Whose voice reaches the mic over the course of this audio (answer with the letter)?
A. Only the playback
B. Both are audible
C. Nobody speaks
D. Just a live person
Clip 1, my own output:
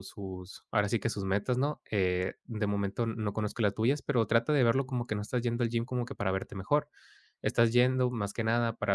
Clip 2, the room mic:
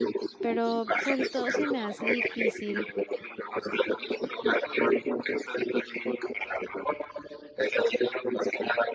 B